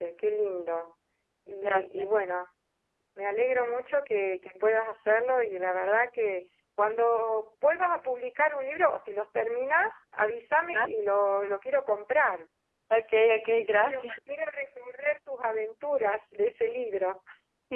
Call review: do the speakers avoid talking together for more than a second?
Yes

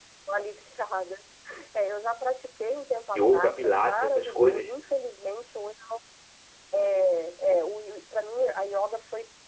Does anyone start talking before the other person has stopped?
Yes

